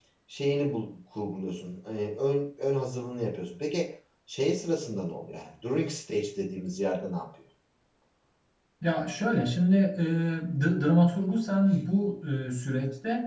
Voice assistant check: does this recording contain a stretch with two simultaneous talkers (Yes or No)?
No